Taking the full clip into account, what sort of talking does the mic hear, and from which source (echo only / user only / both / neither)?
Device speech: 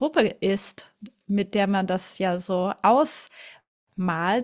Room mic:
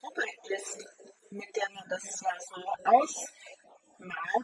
echo only